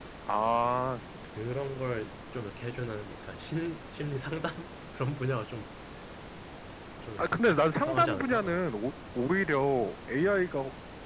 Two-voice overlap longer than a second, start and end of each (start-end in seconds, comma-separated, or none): 7.2-8.6